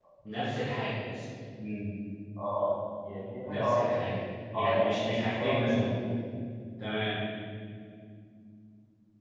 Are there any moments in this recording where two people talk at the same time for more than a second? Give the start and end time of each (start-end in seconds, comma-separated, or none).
4.6-5.8